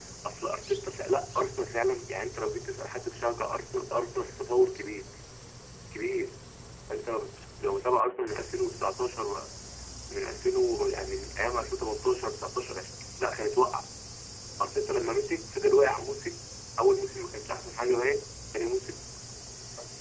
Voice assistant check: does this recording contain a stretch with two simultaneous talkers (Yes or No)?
No